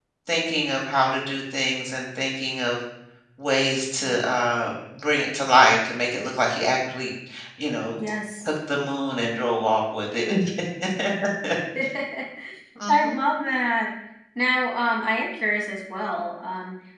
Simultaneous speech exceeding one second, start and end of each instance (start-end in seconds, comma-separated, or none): none